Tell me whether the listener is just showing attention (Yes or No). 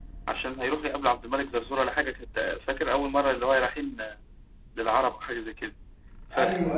Yes